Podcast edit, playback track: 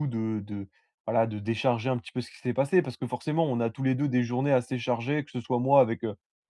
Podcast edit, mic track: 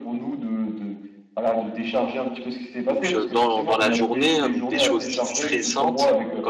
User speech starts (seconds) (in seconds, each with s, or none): 2.8 s